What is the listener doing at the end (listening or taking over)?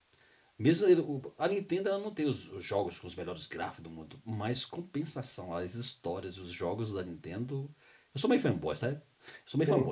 listening